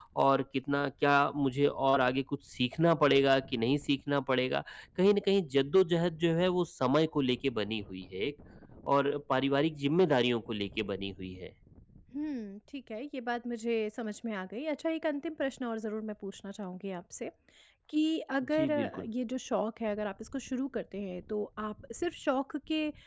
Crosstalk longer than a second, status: none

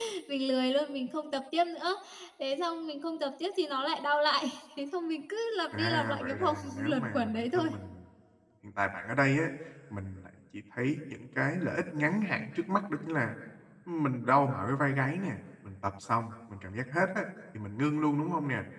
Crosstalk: present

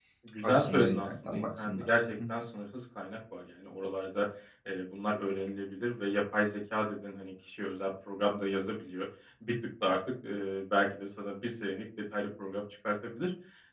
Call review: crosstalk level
present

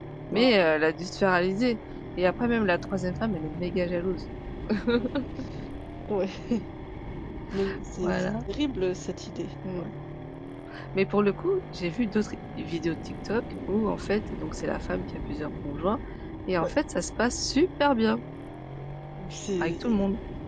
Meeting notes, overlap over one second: none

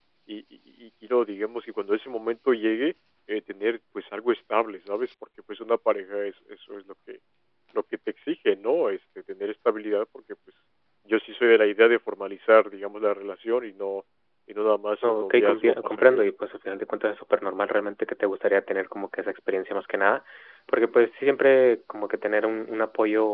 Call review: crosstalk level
present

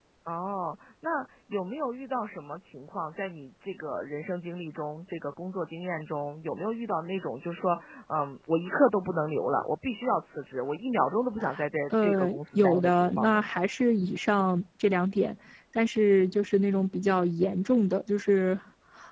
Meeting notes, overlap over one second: present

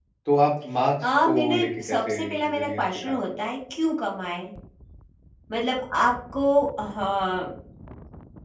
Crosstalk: present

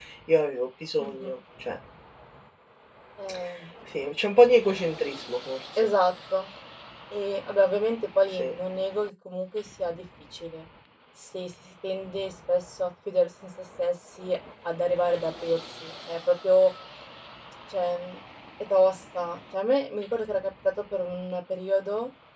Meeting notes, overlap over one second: none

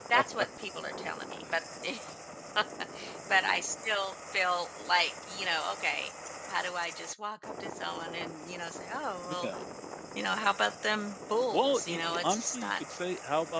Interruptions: present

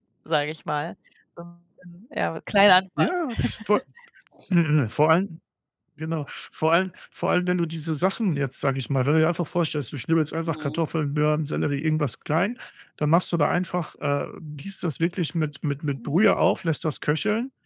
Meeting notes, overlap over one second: none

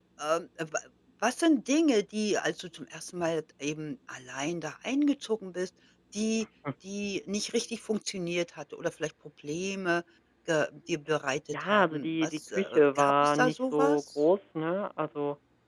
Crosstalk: present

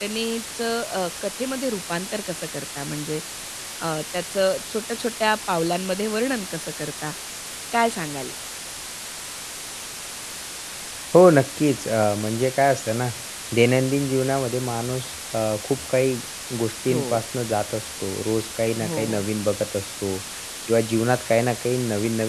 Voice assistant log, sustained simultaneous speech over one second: none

